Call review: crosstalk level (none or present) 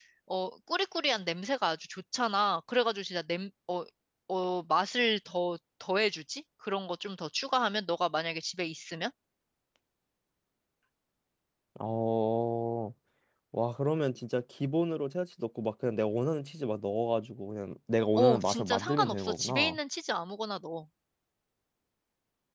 present